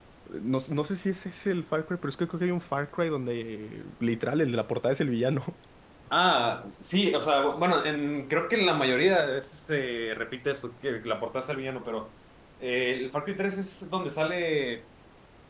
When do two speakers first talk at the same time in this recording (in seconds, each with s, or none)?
none